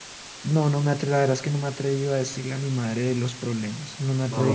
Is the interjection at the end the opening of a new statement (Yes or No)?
Yes